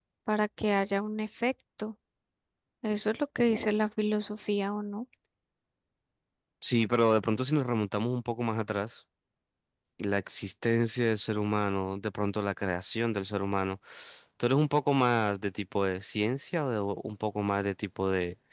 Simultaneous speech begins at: none

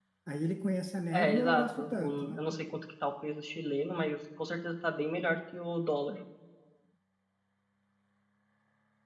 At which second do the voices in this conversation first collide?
1.1 s

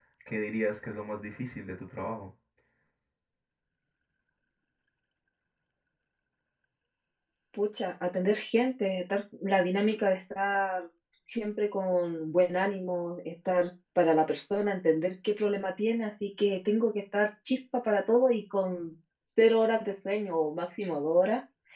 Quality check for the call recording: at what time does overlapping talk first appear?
none

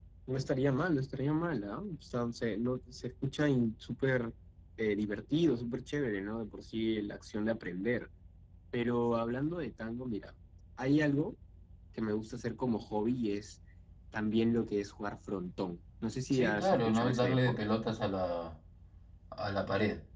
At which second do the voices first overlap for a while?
16.3 s

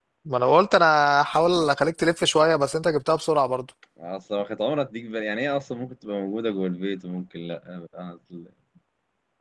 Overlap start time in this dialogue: none

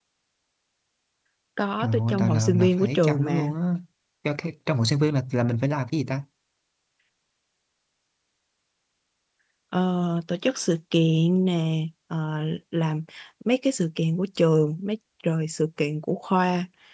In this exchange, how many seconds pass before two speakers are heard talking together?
1.8 s

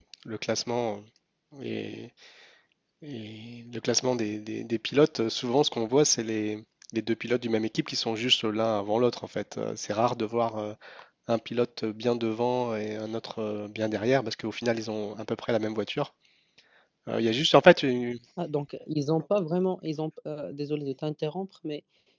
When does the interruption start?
none

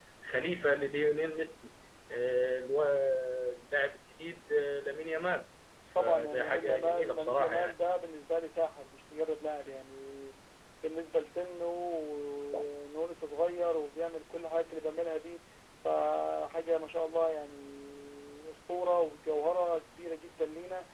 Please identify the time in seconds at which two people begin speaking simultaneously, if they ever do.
6.0 s

